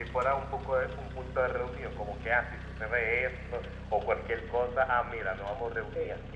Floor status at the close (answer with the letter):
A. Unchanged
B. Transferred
B